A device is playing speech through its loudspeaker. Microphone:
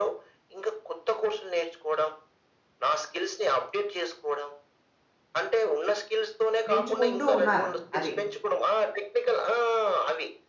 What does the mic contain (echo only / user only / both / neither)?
both